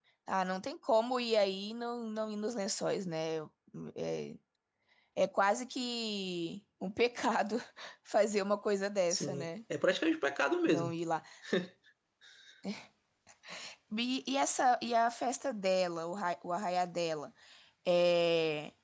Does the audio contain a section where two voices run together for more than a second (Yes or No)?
No